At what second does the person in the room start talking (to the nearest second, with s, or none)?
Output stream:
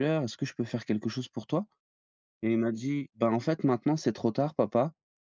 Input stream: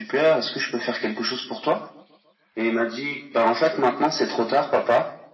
none